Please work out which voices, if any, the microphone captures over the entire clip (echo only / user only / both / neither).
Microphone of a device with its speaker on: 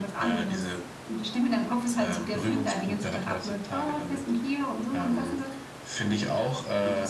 echo only